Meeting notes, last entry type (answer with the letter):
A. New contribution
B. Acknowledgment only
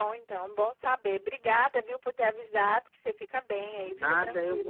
A